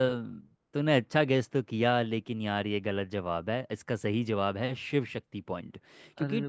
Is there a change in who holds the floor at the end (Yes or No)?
No